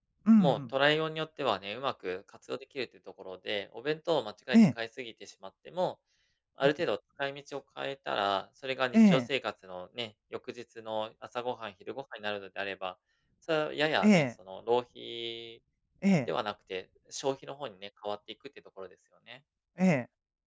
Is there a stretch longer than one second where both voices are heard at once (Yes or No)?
No